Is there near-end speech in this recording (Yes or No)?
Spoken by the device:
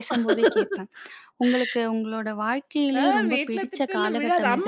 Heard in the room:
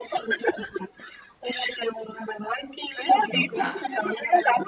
Yes